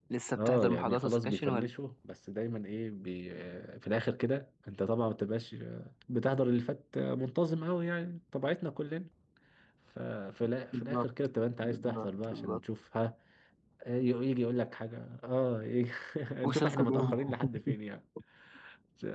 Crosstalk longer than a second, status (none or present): present